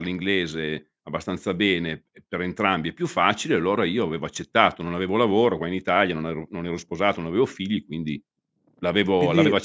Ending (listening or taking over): listening